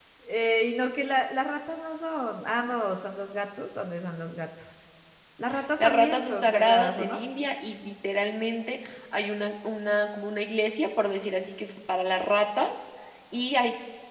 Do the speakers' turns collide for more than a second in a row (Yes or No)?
Yes